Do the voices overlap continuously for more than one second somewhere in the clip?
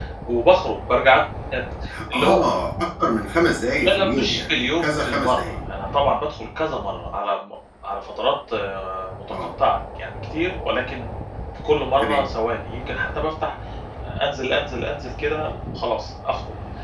Yes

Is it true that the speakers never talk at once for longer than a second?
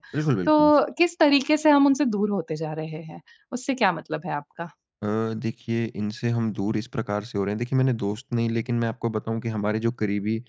Yes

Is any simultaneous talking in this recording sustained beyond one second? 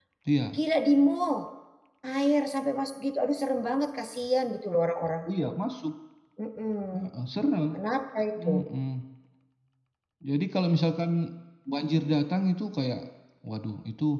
No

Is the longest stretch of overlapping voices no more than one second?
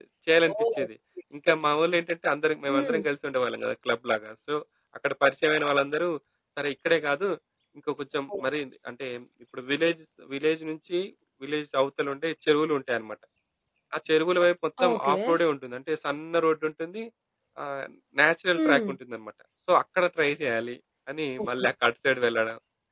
Yes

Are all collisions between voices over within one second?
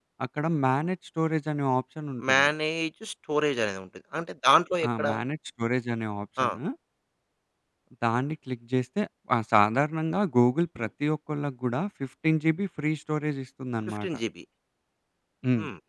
Yes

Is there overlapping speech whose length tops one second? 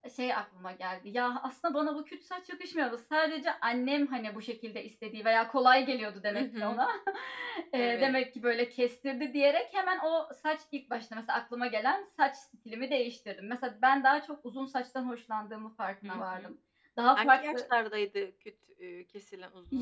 No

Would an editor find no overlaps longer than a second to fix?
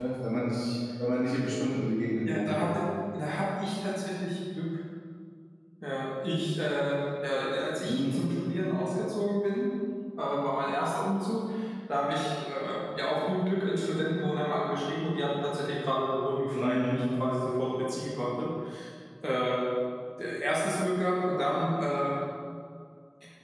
Yes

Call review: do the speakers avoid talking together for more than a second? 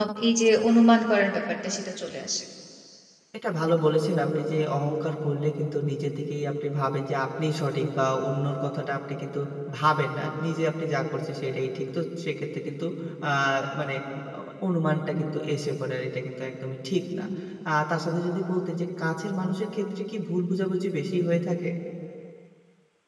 Yes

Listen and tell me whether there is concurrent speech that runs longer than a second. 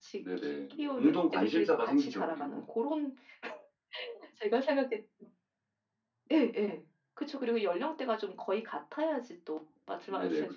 Yes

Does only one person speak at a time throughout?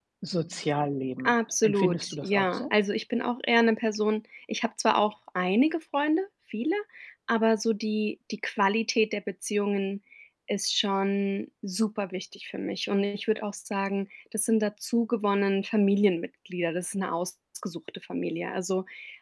No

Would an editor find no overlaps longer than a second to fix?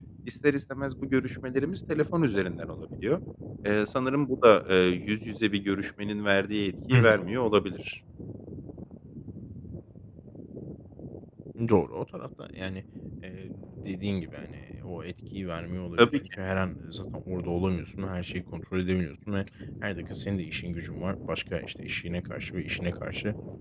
Yes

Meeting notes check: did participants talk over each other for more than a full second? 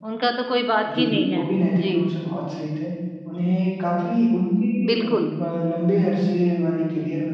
No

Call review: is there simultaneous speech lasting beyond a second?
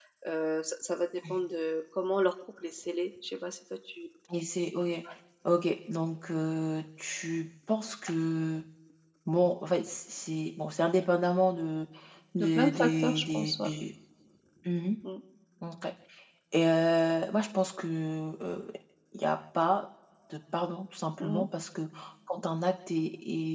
Yes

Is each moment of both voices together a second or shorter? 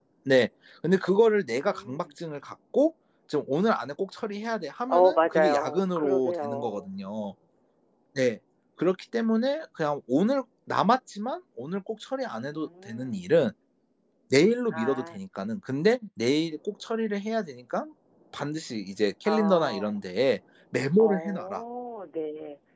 No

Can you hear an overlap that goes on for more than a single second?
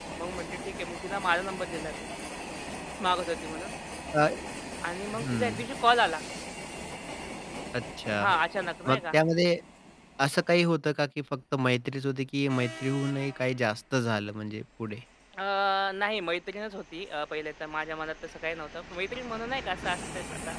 No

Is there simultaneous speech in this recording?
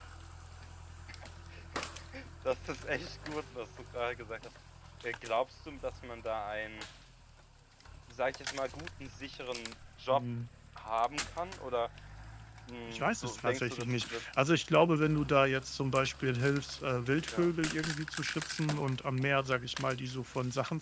Yes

